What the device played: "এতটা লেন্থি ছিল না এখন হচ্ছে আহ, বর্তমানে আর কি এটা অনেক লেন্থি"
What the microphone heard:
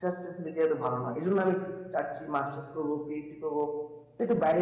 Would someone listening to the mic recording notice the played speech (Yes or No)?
No